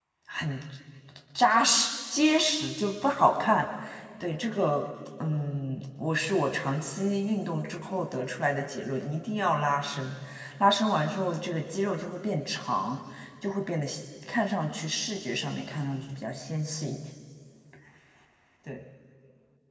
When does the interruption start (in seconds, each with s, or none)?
none